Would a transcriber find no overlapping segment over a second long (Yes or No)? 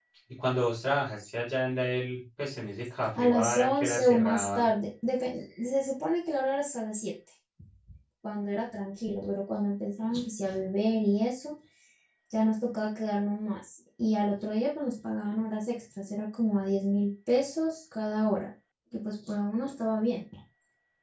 No